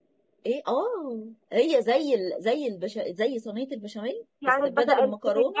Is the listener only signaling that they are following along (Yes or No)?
No